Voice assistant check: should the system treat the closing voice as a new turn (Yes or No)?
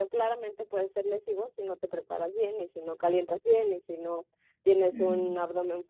No